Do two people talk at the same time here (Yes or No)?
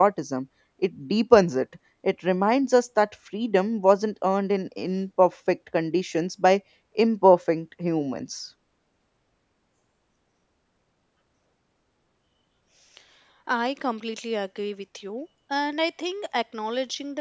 No